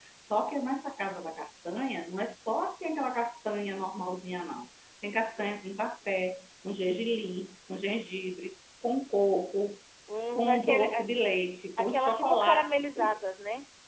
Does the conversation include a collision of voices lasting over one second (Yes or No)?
Yes